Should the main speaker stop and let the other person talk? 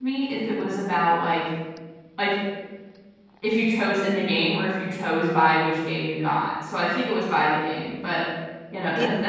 Yes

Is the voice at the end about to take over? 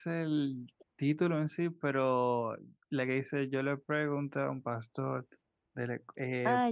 Yes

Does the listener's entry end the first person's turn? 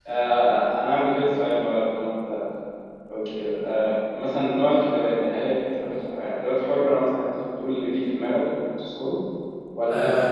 Yes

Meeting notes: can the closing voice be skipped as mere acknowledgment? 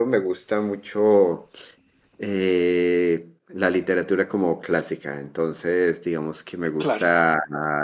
Yes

